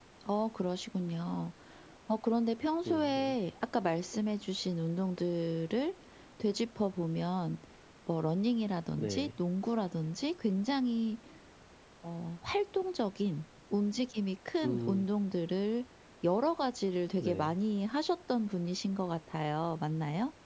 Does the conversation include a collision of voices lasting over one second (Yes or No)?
No